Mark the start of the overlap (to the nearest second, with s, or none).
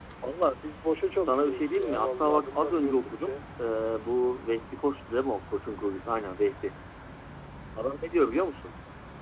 1 s